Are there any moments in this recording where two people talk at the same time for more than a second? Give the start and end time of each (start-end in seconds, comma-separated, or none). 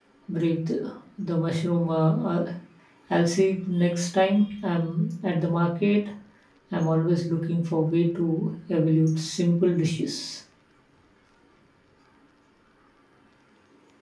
none